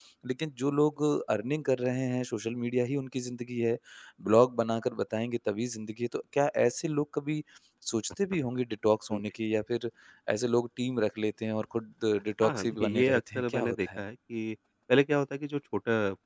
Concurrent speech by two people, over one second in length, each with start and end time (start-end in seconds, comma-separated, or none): 12.4-14.0